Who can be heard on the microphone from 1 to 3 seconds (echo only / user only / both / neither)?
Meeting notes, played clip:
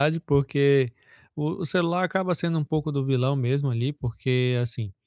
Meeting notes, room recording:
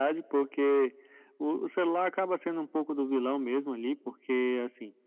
echo only